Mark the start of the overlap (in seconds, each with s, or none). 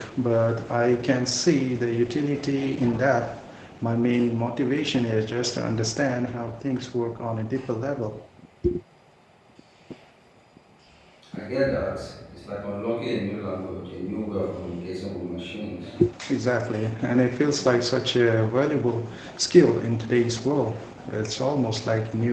none